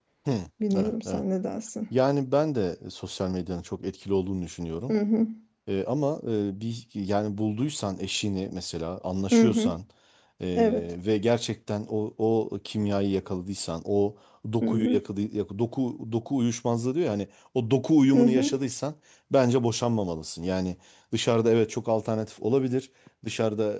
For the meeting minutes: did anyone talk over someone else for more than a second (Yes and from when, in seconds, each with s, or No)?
No